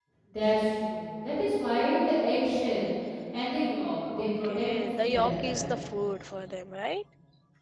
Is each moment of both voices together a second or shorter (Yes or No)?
No